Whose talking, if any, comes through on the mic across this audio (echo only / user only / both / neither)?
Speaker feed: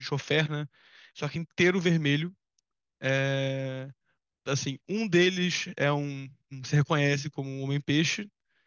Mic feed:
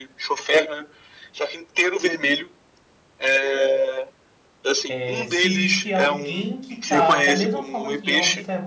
both